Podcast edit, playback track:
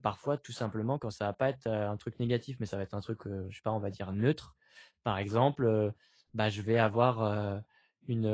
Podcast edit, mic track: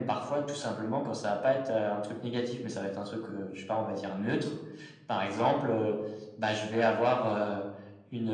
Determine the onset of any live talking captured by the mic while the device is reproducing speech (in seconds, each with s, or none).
none